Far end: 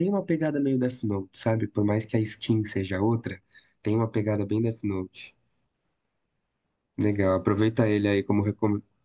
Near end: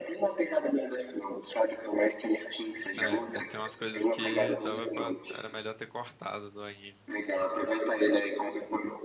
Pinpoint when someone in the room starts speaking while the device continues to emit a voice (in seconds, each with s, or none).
3.0 s